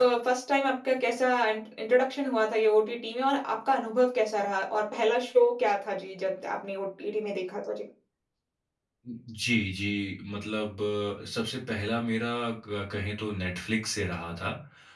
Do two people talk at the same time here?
No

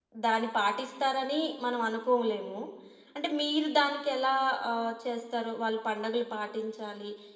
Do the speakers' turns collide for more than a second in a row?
No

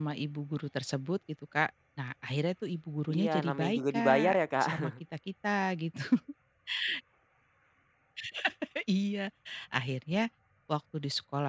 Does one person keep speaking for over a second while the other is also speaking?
Yes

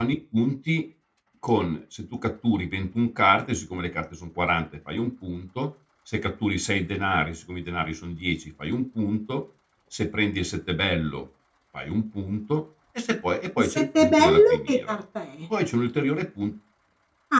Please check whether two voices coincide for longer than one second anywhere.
Yes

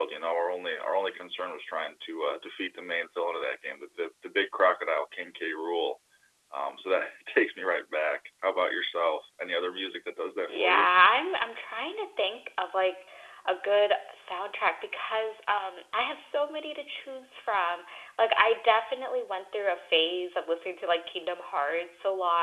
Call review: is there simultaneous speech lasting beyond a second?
No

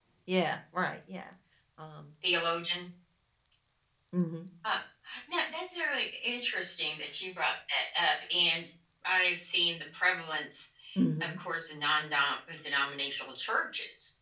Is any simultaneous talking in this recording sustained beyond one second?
No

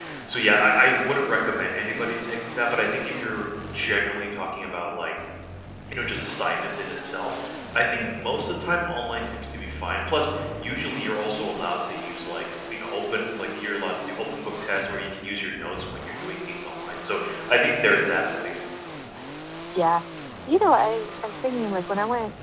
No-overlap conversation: Yes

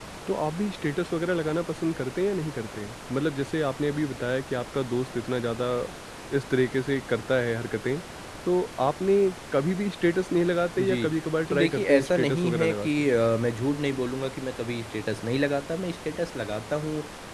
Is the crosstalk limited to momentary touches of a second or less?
No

